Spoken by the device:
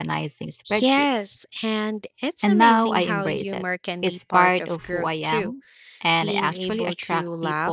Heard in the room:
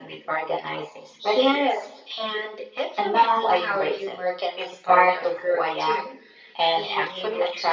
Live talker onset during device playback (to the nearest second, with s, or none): none